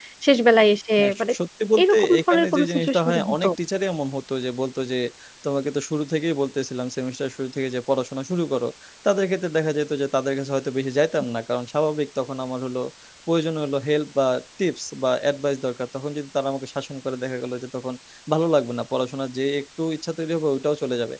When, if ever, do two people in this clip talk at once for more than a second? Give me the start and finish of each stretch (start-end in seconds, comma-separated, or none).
1.8-3.5